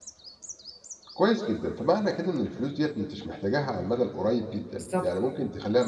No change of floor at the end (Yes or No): Yes